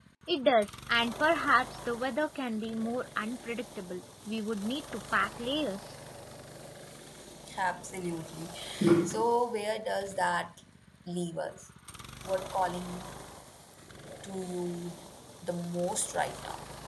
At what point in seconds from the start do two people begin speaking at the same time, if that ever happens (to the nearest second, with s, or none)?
none